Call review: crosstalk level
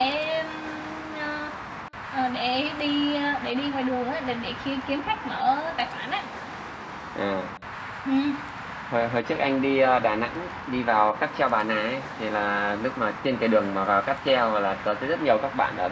none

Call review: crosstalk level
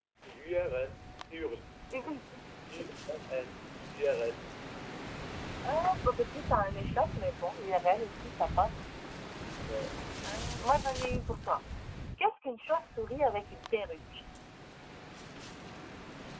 none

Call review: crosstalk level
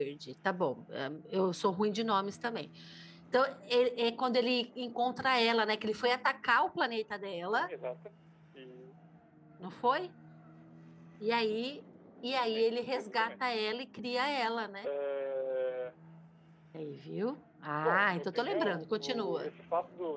present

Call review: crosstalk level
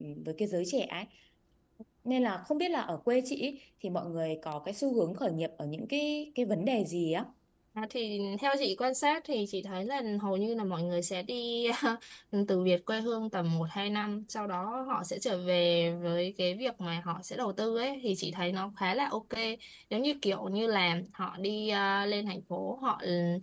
none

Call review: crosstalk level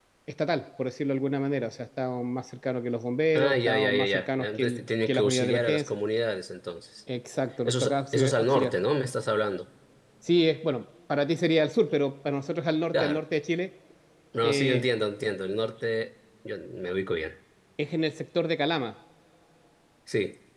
present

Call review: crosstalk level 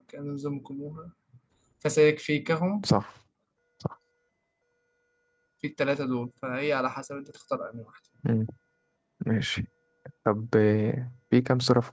none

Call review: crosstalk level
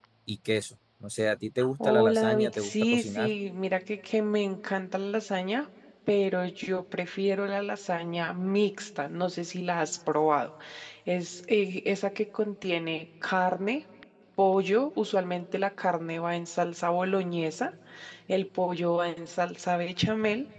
present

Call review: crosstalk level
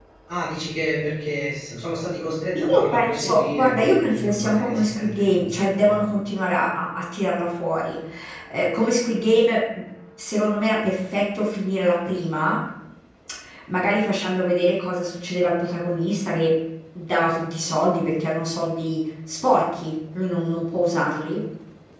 present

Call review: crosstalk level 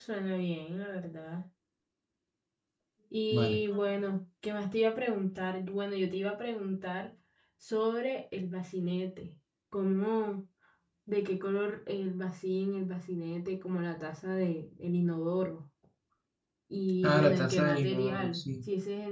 present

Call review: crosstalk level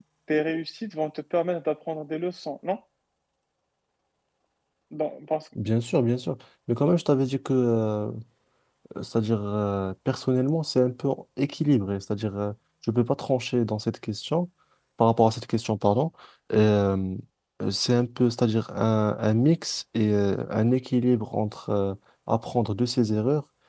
none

